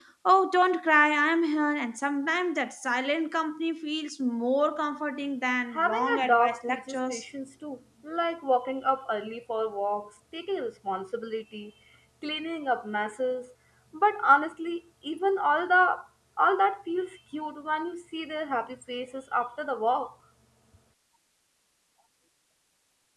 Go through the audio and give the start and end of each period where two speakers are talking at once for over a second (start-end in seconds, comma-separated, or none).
5.7-7.2